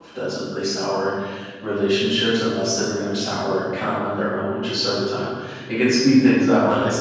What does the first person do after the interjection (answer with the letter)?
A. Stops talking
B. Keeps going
B